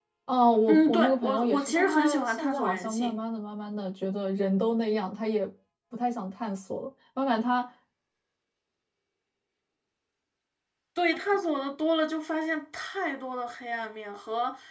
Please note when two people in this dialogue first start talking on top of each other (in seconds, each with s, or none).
0.7 s